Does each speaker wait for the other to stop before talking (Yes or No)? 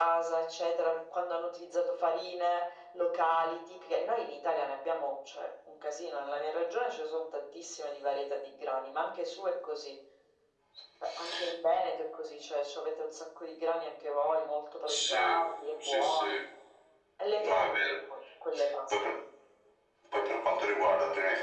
No